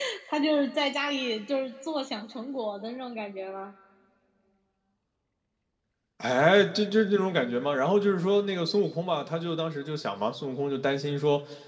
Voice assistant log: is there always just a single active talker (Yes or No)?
Yes